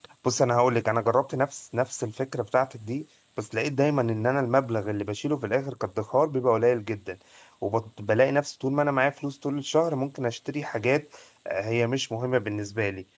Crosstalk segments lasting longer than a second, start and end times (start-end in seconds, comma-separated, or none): none